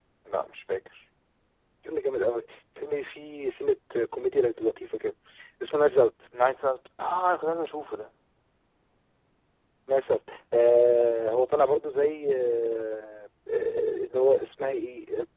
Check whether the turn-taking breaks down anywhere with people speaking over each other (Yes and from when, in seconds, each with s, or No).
No